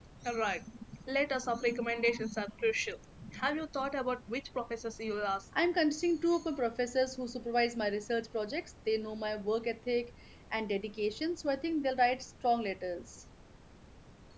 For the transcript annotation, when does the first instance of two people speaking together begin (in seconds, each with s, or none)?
none